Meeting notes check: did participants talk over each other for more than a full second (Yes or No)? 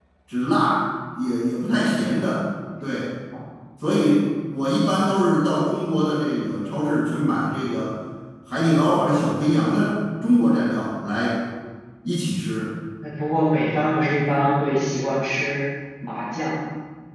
No